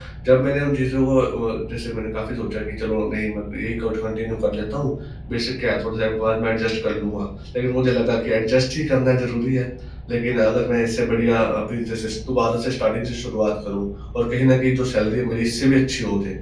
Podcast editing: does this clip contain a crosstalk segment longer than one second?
No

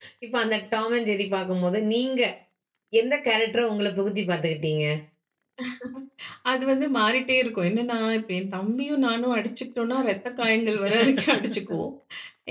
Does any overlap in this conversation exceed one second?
No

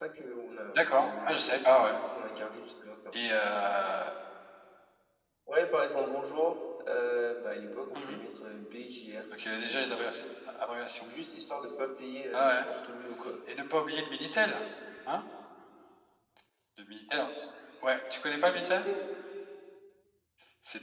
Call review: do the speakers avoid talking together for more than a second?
No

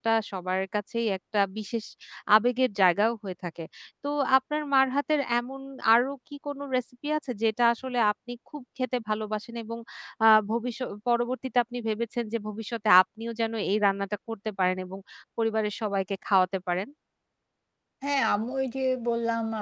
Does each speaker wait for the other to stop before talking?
Yes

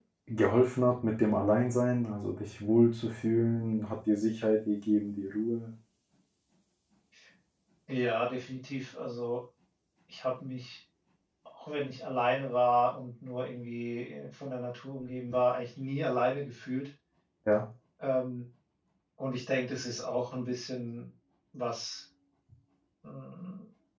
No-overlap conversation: Yes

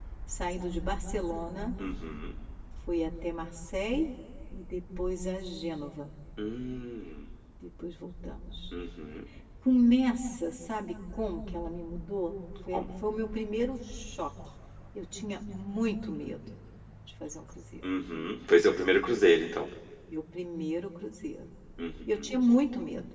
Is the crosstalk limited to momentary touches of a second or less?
Yes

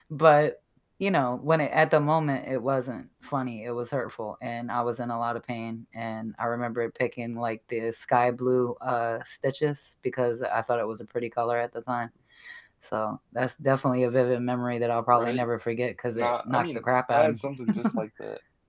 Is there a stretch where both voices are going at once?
Yes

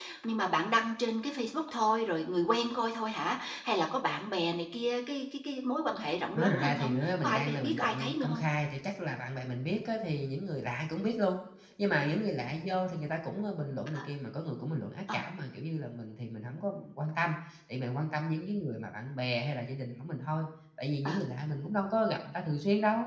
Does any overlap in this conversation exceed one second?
Yes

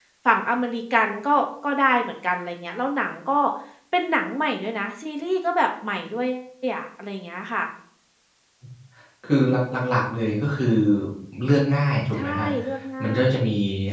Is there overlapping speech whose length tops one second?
No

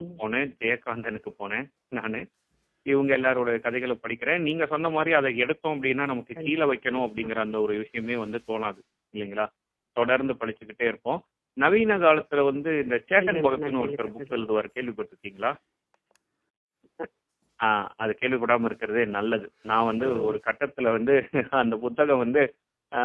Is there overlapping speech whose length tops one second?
Yes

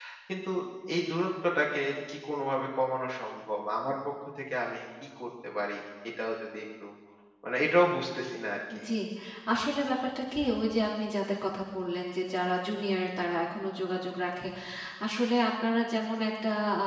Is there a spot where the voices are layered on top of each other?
No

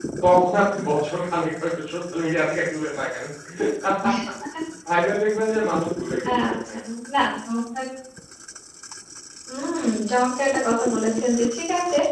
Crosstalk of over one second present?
No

